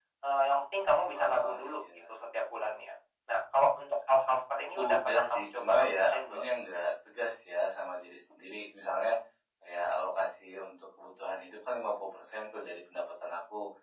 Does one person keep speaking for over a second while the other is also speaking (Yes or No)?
Yes